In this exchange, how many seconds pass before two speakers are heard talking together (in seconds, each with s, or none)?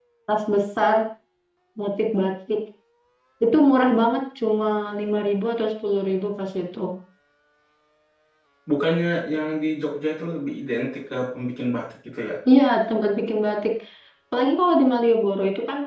none